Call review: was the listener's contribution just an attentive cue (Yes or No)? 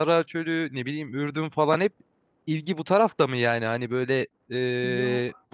Yes